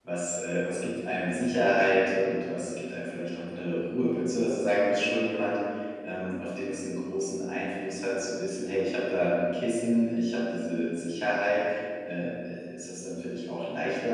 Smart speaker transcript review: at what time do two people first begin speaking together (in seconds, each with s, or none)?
none